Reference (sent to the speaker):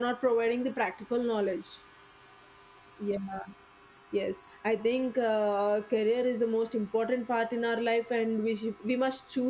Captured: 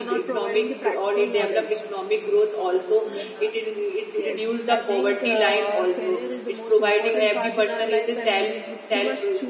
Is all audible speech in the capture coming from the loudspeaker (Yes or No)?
No